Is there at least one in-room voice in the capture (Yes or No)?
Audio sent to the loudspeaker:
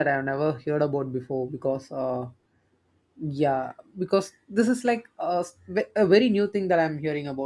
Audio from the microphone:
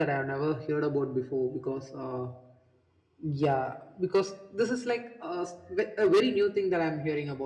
No